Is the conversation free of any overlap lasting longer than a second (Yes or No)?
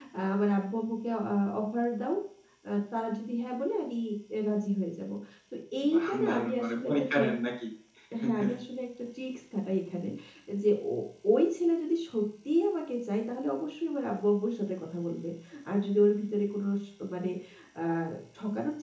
No